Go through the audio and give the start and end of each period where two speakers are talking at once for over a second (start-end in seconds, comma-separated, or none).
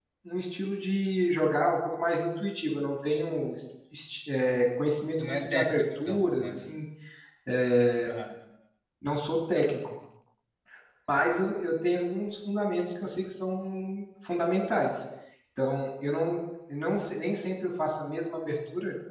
5.2-6.6